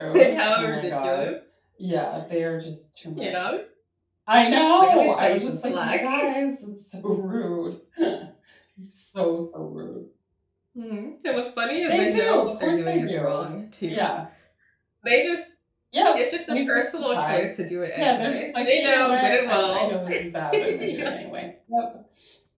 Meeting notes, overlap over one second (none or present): present